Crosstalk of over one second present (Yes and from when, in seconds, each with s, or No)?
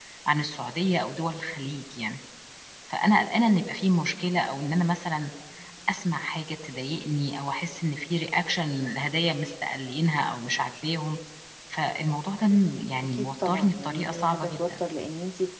Yes, from 13.1 s